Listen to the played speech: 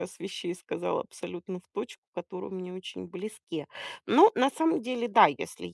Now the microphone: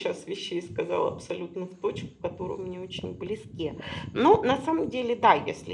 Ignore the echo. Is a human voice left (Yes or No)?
No